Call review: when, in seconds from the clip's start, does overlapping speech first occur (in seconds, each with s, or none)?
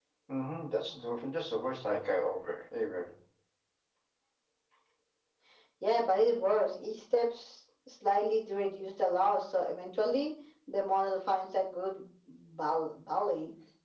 none